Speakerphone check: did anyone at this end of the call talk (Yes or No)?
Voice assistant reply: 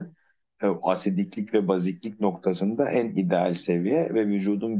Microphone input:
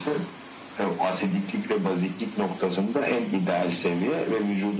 No